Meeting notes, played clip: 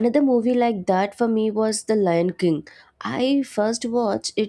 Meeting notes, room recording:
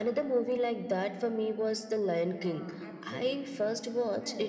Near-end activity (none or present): present